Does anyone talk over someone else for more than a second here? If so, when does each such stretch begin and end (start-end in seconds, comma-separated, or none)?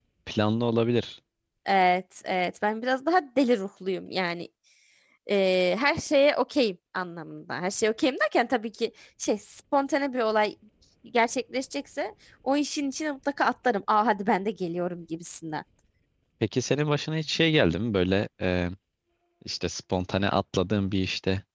none